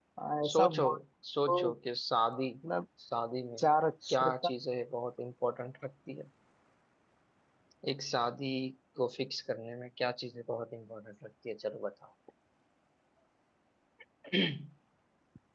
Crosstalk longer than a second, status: none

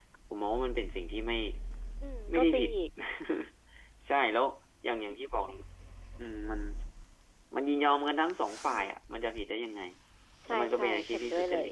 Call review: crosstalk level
present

